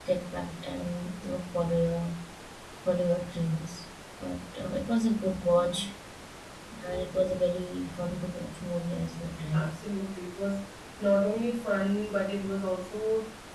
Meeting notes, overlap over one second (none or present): none